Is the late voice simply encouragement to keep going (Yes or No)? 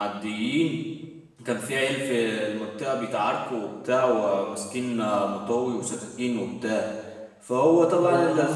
Yes